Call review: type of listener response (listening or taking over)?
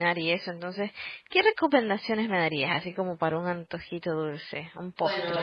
taking over